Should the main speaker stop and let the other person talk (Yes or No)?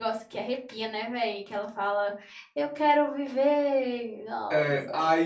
Yes